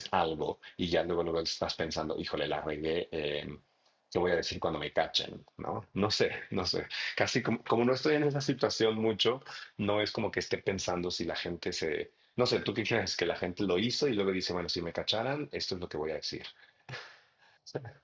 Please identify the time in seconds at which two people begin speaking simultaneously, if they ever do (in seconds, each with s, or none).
none